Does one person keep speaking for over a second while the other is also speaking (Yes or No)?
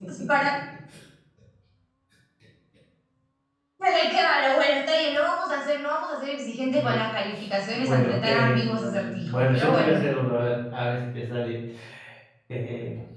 Yes